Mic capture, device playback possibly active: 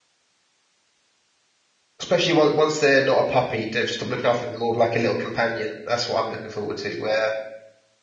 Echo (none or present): none